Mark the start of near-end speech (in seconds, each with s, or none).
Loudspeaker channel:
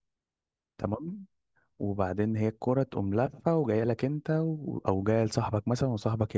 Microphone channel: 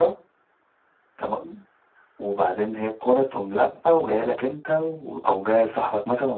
none